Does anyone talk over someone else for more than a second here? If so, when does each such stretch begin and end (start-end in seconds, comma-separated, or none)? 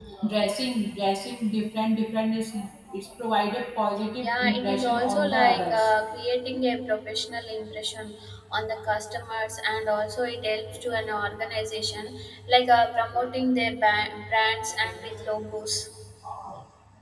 4.2-5.9